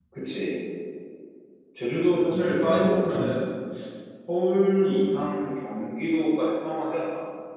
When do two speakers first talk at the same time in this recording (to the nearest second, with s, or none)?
2 s